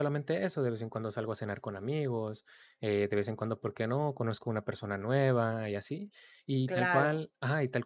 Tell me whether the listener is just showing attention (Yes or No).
Yes